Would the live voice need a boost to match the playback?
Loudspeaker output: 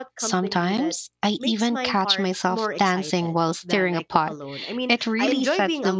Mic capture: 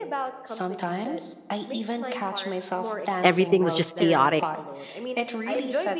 No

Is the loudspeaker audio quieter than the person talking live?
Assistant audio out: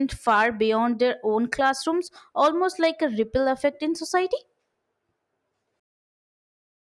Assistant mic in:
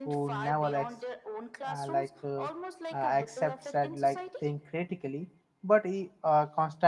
Yes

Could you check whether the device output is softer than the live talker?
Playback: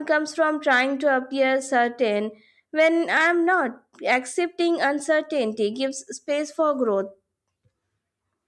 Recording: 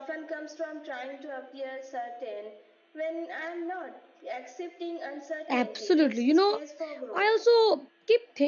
Yes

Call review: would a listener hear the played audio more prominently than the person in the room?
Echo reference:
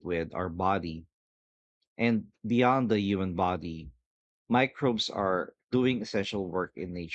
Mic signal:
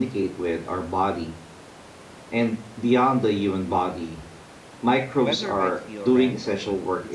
Yes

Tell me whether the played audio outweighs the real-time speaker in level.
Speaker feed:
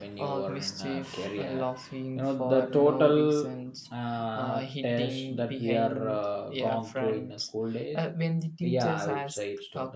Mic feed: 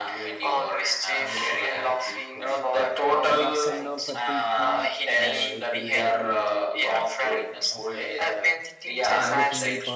Yes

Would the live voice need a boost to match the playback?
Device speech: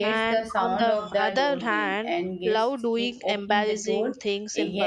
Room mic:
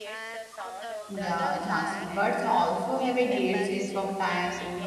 No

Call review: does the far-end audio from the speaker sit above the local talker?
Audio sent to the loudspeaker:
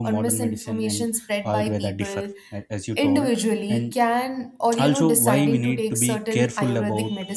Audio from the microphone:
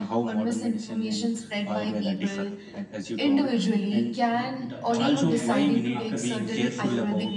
Yes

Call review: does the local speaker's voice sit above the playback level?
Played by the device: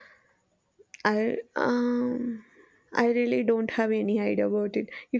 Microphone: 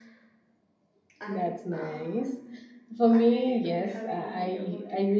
Yes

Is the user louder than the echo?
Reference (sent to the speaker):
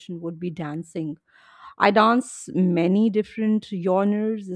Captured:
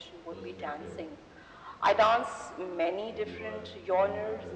No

